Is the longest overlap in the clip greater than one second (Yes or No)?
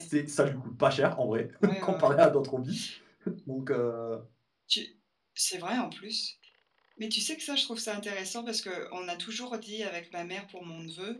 No